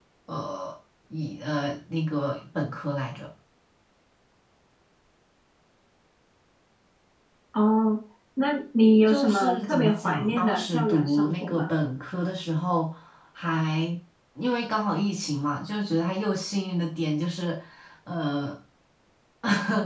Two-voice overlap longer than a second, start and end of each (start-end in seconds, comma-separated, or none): 9.1-11.7